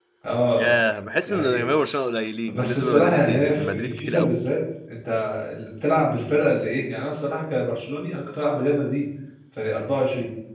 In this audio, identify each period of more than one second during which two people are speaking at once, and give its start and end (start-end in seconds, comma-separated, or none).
2.5-4.3